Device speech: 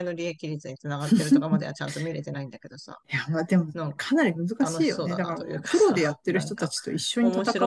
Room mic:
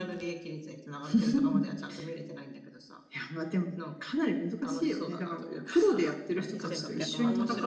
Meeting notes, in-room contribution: present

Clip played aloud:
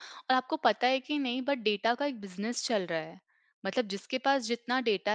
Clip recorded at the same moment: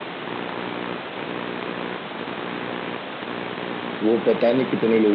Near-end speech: present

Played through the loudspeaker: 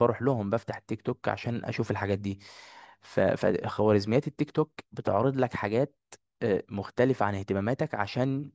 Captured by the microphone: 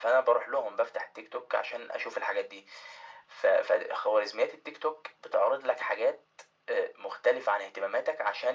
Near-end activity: none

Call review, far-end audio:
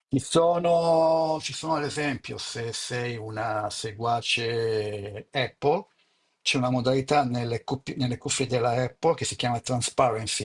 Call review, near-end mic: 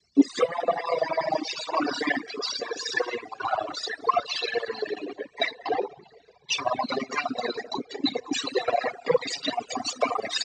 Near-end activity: none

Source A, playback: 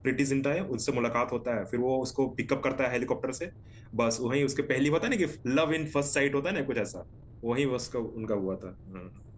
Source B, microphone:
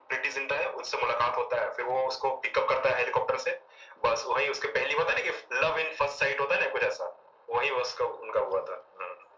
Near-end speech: none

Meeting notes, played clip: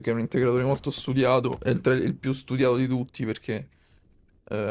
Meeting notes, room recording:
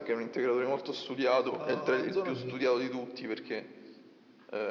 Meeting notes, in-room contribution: present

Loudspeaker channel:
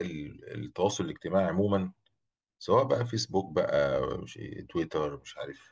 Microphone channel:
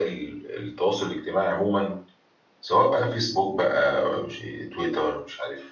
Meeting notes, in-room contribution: none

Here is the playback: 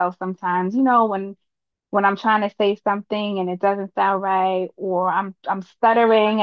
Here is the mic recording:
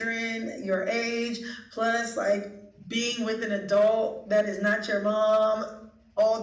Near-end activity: present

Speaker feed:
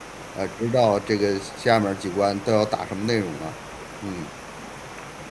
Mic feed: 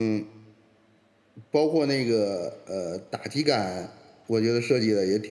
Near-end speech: present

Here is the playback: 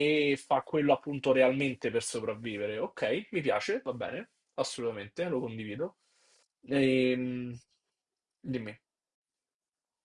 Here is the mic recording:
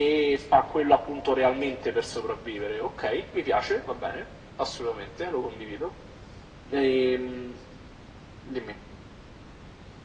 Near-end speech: none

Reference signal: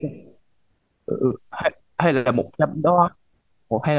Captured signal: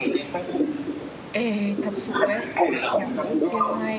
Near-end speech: present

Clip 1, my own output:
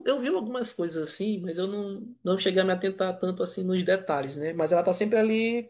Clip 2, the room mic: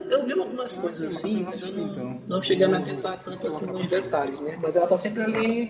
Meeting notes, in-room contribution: present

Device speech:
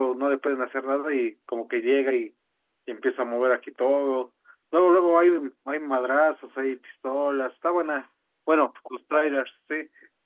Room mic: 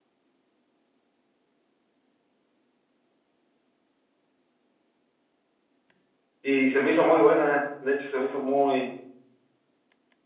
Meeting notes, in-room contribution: present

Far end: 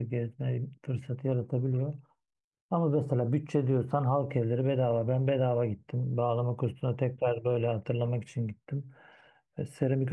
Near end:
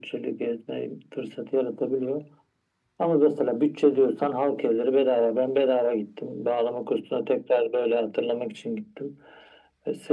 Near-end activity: none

